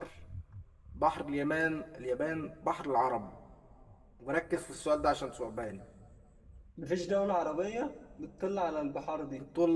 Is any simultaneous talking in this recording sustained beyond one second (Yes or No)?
No